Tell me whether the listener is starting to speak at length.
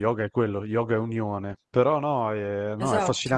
No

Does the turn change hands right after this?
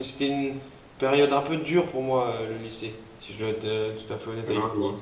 Yes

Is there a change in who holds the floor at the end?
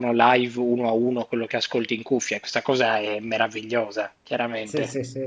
Yes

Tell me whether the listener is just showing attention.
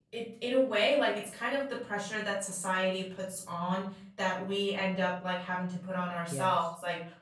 Yes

